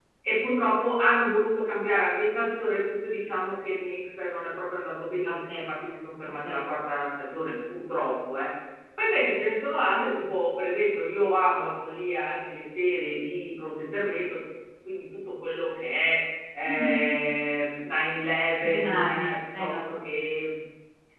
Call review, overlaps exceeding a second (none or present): present